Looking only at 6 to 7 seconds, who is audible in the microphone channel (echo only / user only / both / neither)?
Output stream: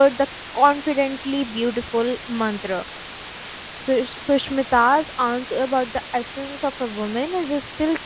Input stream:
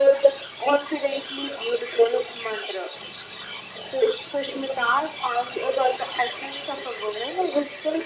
echo only